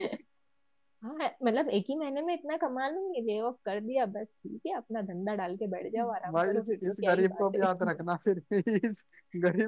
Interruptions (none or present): present